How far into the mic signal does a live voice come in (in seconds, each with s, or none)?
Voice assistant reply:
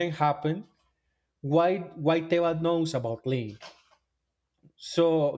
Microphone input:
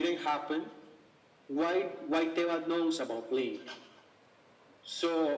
none